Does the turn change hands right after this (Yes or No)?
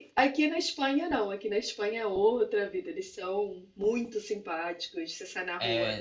Yes